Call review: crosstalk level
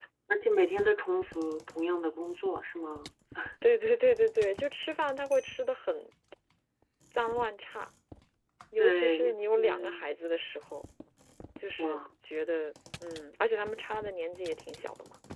present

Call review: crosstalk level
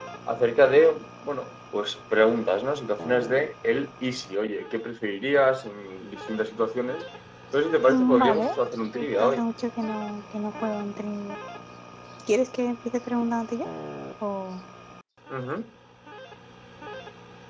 present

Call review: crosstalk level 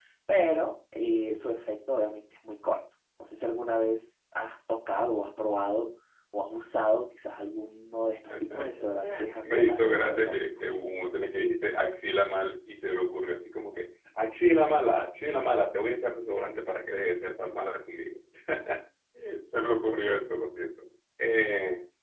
present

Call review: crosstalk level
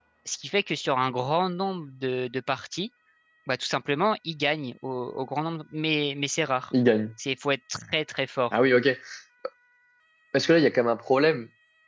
none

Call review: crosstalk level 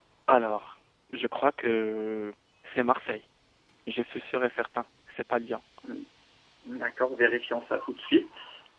none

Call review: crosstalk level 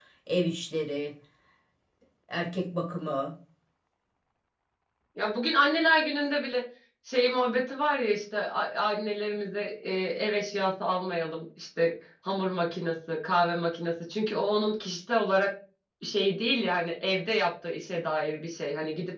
none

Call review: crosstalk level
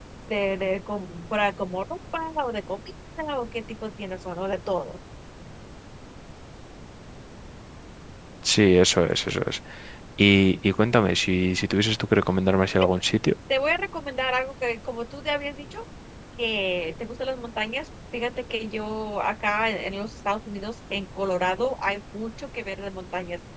none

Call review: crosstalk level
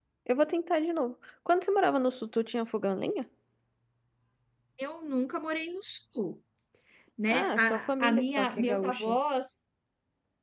present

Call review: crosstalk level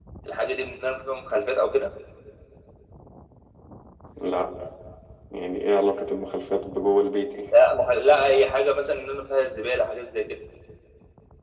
none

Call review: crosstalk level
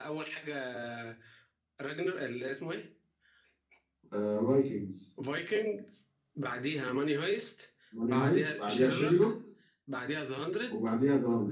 present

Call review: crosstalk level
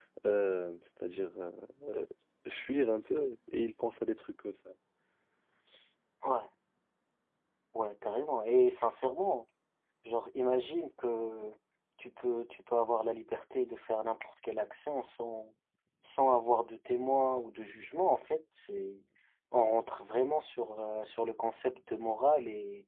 none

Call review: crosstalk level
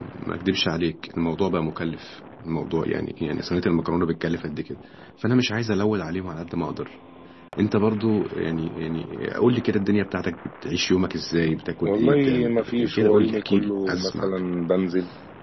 present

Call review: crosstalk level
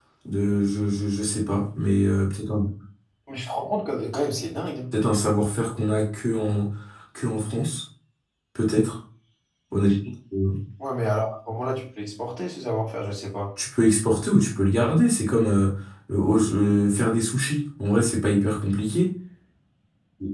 none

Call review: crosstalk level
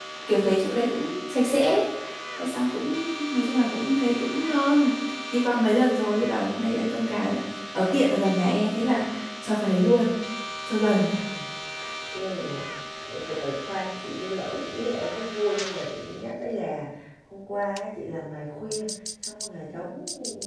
none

